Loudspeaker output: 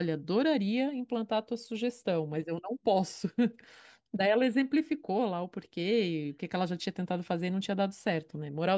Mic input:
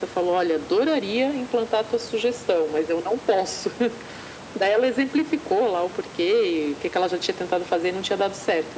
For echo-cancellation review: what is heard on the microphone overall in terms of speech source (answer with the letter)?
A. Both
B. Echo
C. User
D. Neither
B